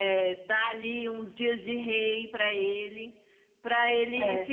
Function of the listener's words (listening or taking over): listening